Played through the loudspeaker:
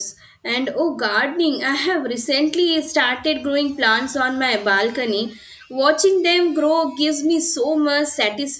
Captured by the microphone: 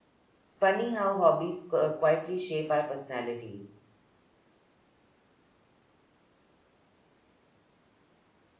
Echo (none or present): none